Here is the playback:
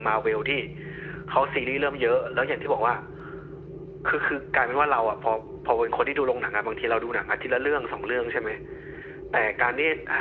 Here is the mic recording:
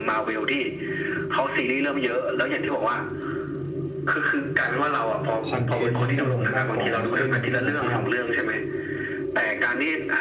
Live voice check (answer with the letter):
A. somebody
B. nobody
A